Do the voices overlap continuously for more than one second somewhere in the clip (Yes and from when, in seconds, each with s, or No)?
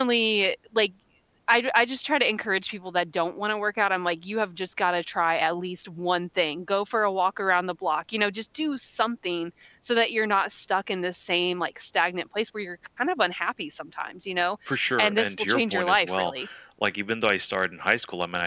Yes, from 15.0 s